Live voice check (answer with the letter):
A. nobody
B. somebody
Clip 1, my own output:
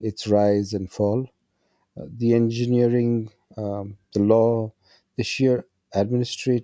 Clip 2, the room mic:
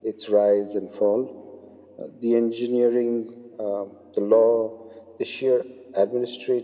A